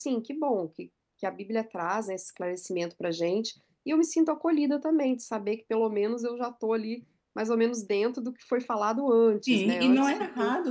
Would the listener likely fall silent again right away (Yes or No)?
No